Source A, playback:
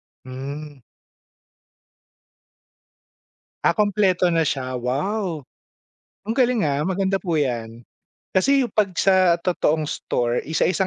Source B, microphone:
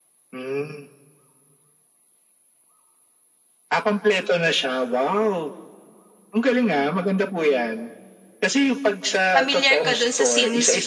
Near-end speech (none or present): present